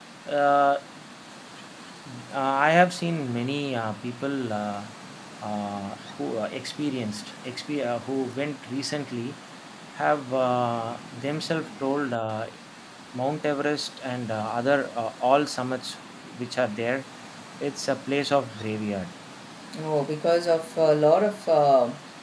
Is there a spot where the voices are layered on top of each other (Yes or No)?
No